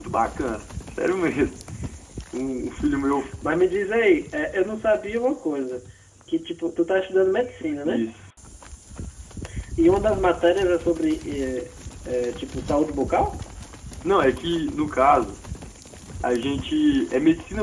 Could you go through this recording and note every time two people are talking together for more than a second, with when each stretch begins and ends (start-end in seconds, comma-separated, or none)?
none